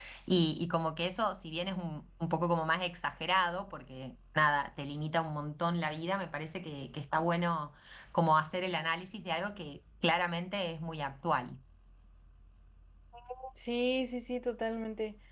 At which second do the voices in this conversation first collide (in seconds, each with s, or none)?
none